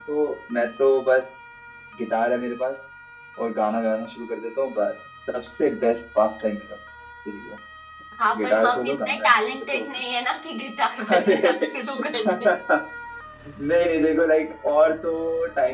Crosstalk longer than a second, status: present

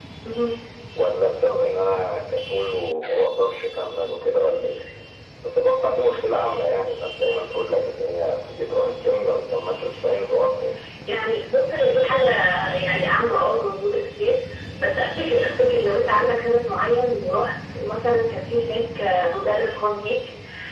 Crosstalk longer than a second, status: none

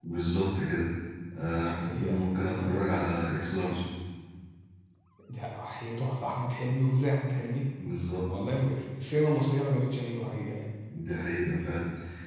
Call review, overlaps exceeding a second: none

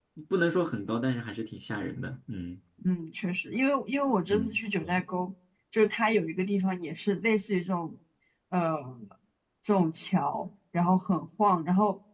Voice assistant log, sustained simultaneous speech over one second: none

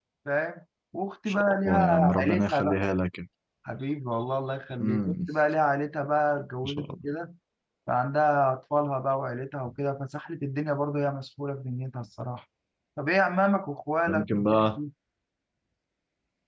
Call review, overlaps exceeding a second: present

